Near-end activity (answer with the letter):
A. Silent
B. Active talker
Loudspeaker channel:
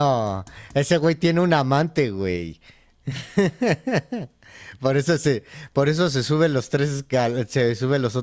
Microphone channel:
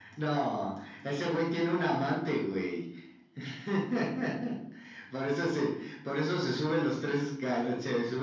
A